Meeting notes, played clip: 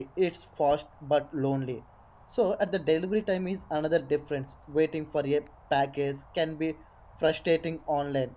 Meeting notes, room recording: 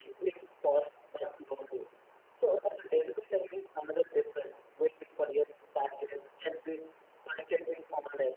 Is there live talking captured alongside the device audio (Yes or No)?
No